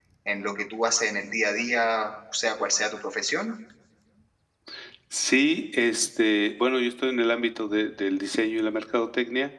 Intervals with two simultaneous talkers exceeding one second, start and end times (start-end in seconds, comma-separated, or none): none